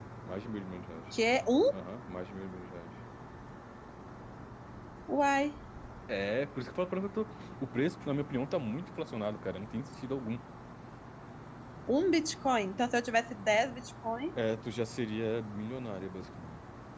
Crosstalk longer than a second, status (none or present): none